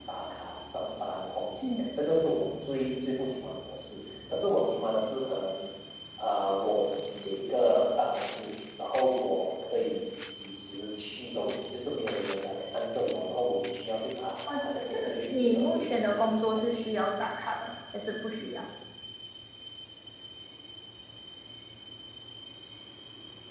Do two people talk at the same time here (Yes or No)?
Yes